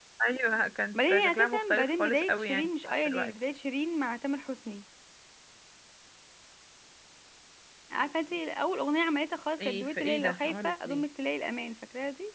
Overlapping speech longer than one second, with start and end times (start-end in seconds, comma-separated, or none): 0.9-3.3, 9.6-11.0